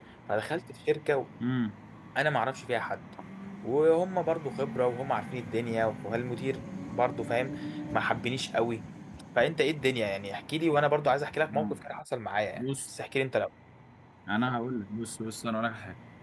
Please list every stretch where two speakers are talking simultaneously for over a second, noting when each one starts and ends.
none

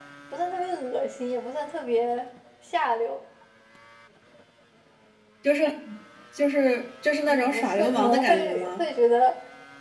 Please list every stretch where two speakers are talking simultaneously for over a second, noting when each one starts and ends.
7.3-8.8

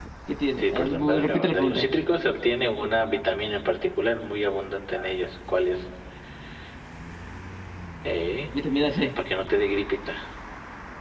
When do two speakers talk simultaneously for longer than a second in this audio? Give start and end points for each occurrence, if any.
0.6-1.9

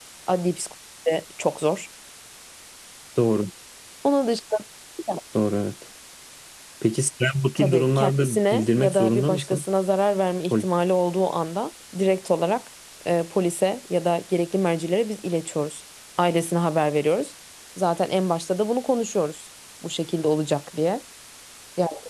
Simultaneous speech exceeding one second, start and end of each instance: 7.6-9.6

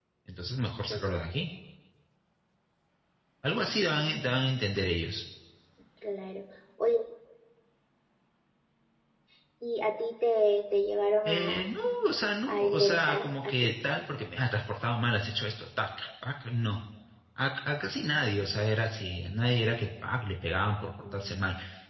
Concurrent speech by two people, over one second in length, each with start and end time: 12.5-13.7

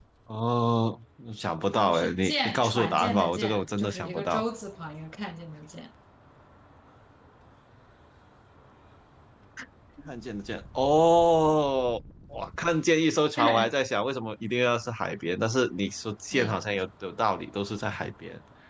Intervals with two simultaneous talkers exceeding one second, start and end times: 1.7-4.4

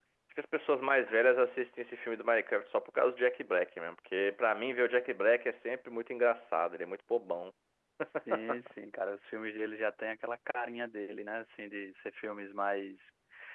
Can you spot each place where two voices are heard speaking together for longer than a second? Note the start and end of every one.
none

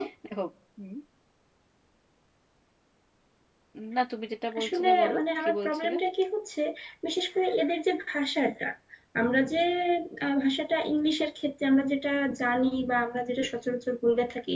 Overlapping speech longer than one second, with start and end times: 4.6-5.9

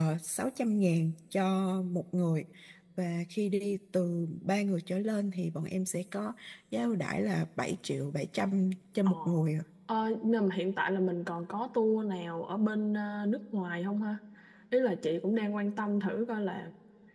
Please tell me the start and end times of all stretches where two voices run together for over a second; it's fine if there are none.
none

